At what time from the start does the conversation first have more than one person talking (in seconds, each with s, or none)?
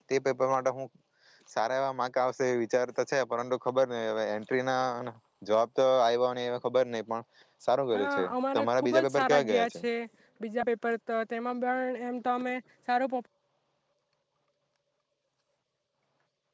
7.9 s